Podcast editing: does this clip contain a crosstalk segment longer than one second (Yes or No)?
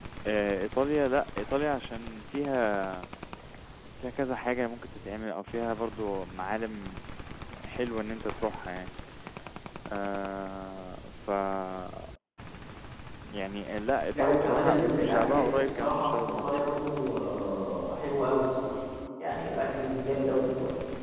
Yes